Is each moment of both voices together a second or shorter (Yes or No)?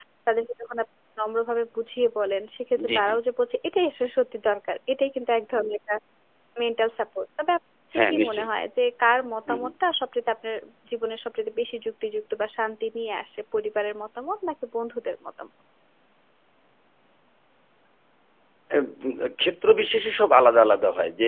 Yes